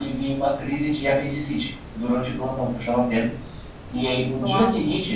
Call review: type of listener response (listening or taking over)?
listening